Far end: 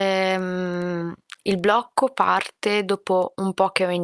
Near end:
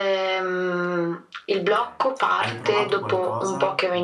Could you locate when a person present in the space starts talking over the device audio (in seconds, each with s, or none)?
1.6 s